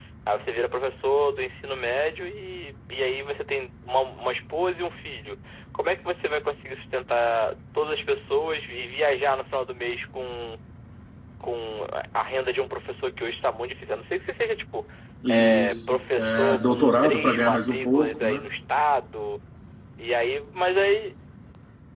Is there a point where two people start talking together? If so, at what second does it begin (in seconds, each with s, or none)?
15.3 s